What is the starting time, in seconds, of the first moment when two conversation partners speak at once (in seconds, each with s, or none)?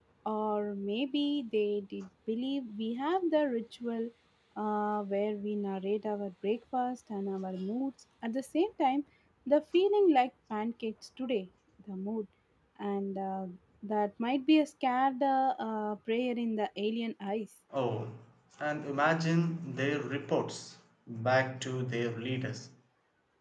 none